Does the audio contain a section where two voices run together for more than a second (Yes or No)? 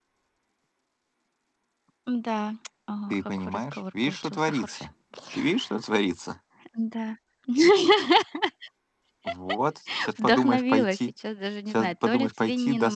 Yes